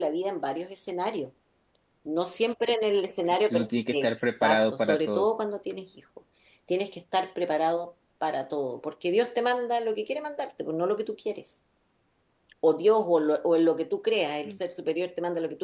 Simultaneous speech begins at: 3.5 s

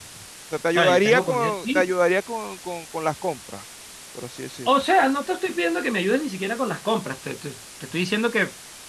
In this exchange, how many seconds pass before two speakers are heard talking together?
0.7 s

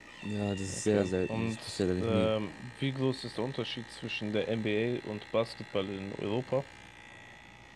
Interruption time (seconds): 0.7 s

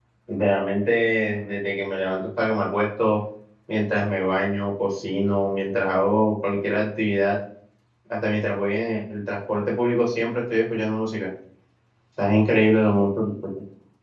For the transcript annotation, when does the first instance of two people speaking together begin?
none

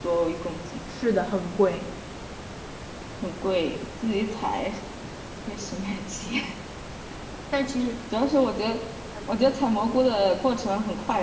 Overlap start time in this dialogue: none

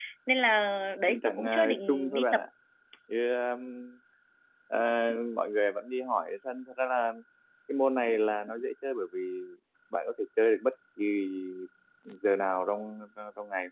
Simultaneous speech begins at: 1.1 s

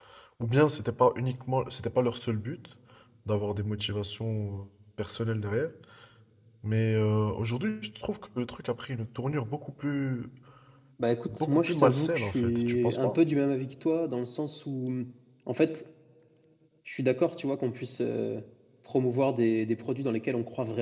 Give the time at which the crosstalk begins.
11.4 s

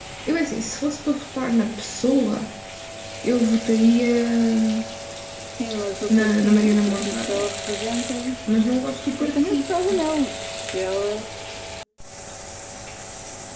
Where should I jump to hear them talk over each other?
6.1 s

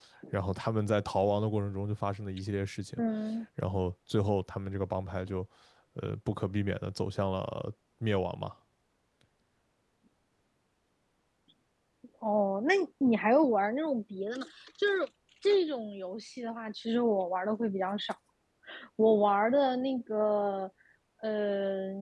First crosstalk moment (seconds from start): none

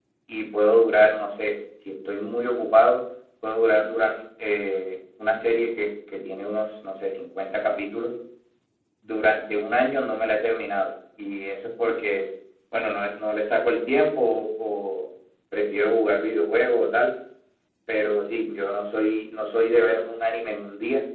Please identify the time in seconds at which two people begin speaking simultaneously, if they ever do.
none

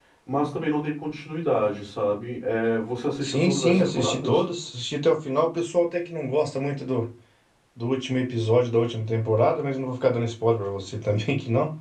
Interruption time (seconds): 3.2 s

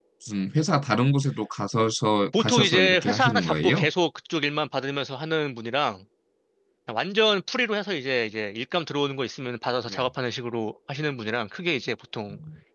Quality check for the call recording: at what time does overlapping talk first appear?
2.3 s

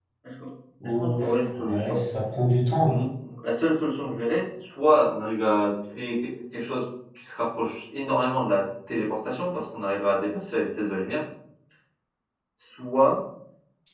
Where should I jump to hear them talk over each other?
0.8 s

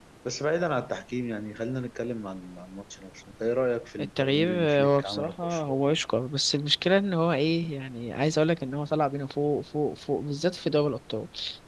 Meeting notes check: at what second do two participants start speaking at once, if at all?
4.2 s

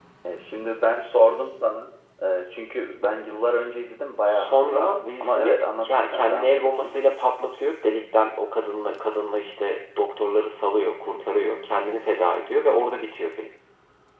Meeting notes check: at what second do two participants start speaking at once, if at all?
4.3 s

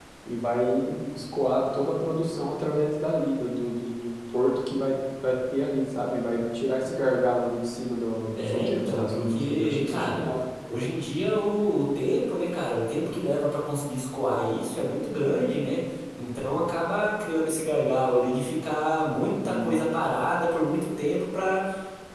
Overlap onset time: 8.4 s

